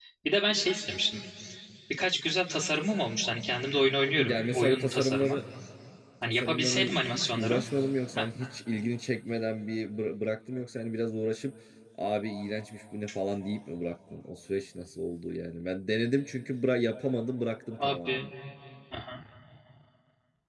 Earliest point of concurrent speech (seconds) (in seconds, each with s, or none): 4.2 s